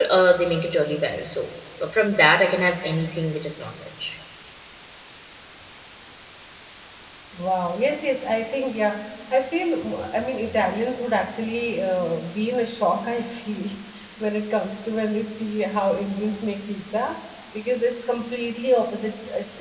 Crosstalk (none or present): none